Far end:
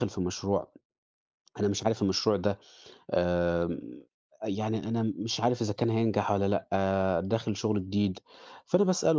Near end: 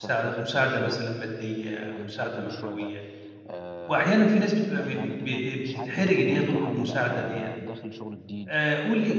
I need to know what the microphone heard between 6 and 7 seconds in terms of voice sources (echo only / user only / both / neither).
both